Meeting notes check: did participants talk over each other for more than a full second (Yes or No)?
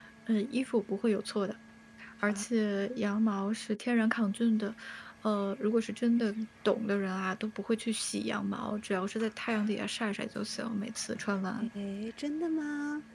No